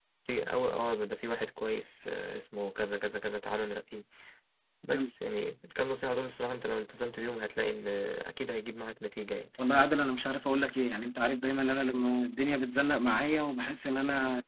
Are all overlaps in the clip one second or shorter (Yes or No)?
Yes